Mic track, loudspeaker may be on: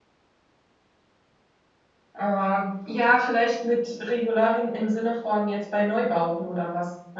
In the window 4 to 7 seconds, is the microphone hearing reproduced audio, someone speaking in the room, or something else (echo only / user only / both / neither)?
user only